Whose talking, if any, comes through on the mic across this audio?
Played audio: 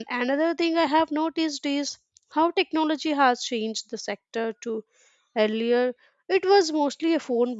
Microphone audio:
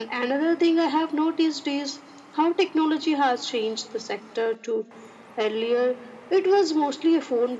echo only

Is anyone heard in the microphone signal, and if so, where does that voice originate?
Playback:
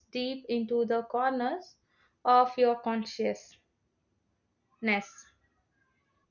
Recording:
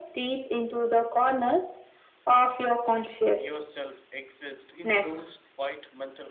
both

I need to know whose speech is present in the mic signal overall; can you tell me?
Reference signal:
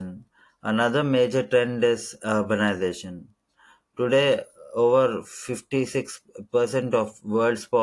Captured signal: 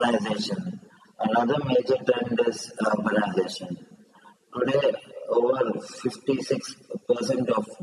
echo only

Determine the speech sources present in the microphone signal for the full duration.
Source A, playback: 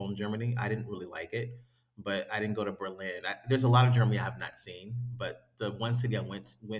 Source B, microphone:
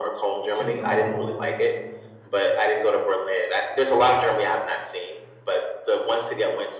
both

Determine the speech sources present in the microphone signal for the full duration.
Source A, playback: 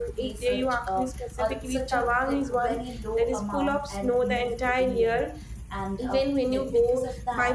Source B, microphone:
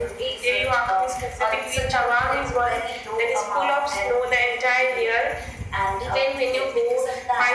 echo only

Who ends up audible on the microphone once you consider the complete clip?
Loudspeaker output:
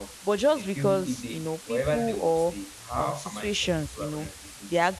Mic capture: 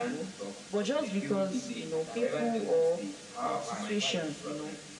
both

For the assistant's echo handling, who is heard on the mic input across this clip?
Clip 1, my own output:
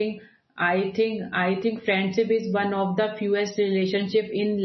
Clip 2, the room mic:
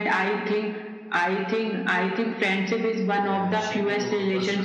both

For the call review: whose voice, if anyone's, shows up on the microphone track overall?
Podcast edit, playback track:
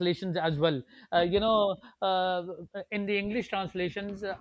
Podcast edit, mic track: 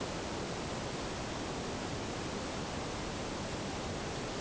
neither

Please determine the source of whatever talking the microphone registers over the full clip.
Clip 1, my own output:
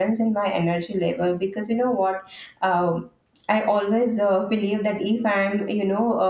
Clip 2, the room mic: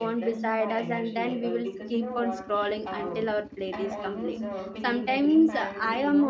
both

